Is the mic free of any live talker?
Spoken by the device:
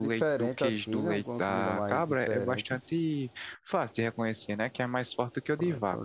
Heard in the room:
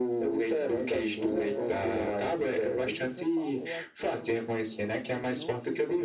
No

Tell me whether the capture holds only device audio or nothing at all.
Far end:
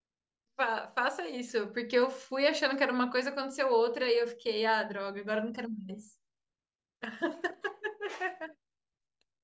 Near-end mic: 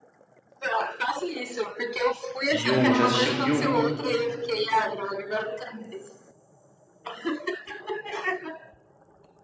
No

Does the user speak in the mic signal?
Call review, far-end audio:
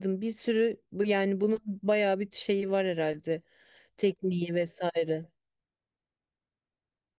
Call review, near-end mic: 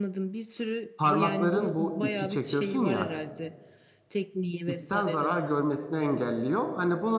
Yes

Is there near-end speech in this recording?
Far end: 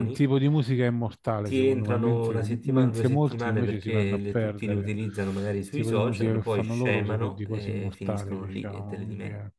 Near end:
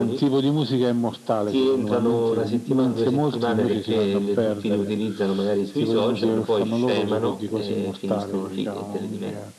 Yes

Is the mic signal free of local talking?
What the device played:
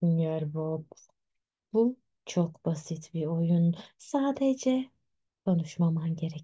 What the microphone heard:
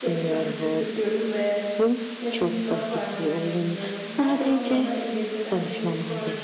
No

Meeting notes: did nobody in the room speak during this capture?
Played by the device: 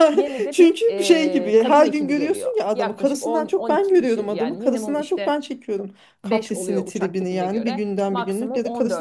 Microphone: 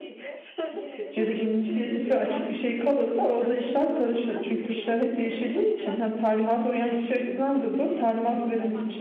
No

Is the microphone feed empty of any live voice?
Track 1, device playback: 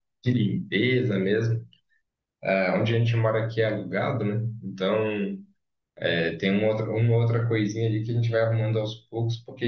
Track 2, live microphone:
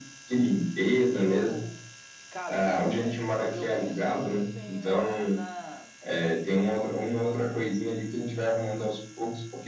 No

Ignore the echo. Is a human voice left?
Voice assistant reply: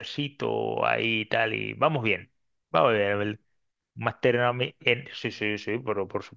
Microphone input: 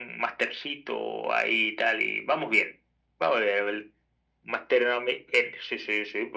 No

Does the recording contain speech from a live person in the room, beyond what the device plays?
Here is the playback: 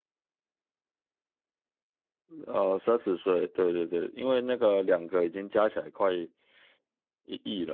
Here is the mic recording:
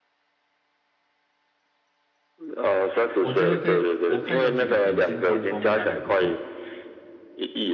Yes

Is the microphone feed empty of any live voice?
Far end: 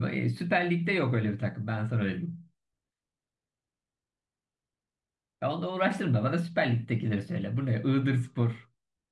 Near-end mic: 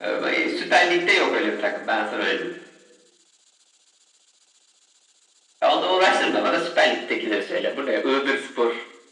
Yes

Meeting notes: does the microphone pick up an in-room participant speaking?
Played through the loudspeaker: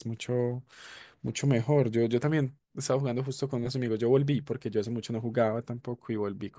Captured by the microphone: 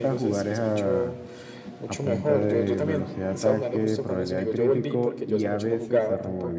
Yes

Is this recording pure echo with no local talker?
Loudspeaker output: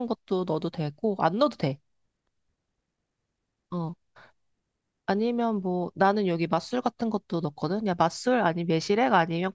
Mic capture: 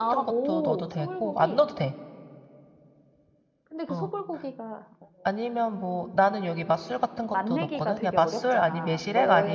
No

